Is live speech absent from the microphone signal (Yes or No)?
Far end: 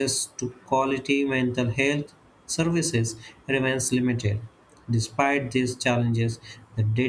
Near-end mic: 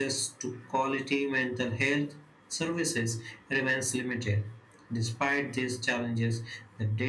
Yes